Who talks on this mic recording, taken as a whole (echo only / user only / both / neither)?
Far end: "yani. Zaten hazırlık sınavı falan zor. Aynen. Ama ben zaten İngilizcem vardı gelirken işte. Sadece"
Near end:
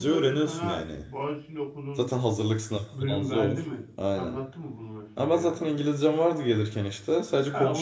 both